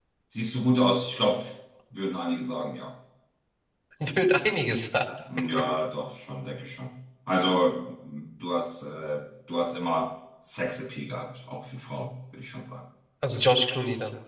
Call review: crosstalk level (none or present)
none